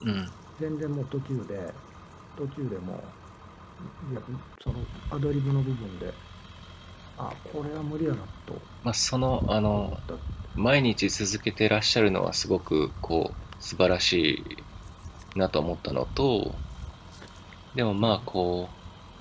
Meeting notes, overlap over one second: none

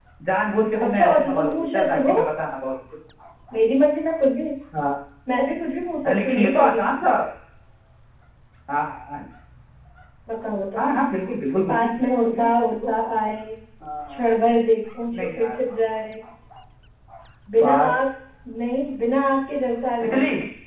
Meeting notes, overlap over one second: present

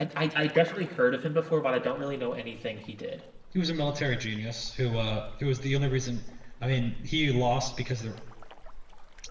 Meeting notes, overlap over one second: none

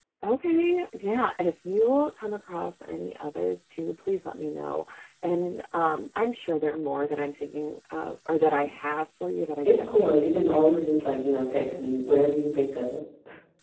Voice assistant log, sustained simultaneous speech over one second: present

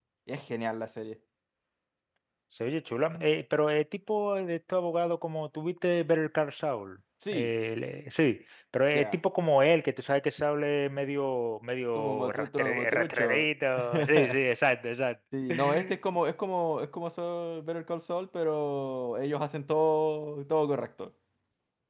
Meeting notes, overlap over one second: present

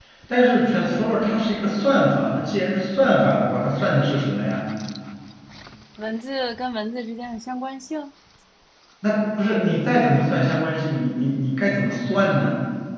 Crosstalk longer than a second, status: none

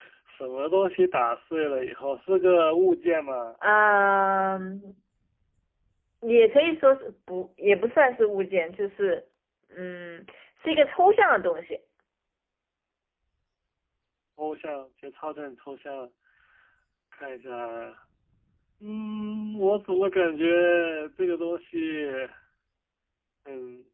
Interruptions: none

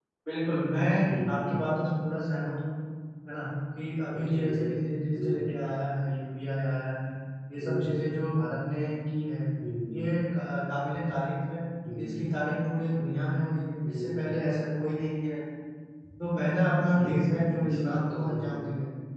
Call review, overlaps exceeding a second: present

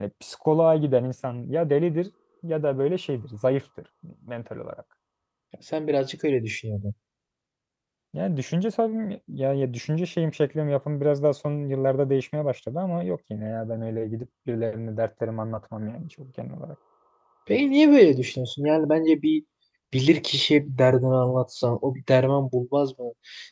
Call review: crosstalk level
none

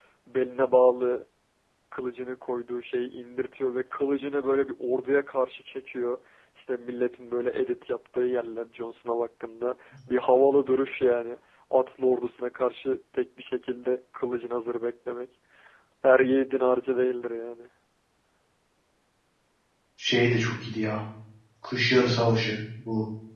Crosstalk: none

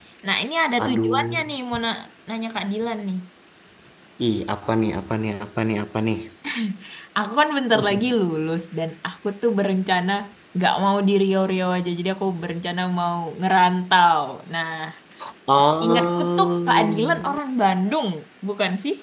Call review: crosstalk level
present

